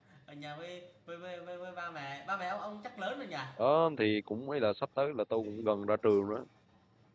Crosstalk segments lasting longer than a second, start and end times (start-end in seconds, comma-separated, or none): none